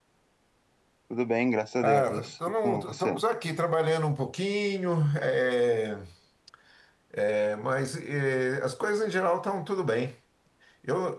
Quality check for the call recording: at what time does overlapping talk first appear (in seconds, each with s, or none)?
1.8 s